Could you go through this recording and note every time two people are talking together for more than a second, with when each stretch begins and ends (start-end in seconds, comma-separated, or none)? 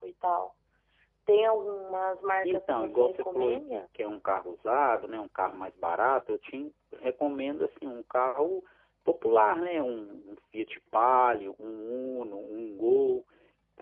2.4-3.8